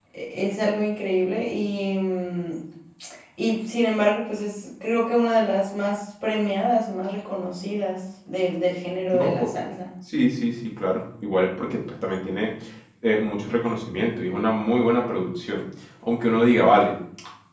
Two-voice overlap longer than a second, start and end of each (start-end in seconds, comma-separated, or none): none